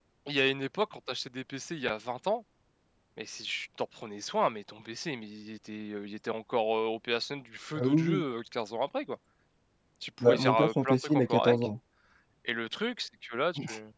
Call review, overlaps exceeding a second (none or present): present